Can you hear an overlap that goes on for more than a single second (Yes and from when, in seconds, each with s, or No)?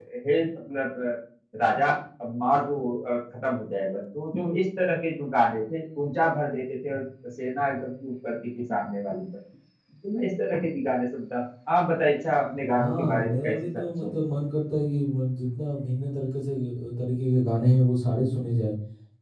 Yes, from 12.8 s